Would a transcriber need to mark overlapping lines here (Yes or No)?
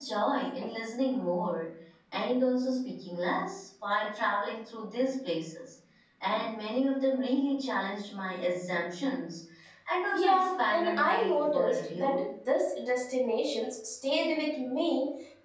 Yes